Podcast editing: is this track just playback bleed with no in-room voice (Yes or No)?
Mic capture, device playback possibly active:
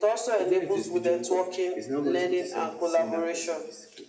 No